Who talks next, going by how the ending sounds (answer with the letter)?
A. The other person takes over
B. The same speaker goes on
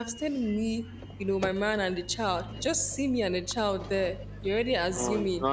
A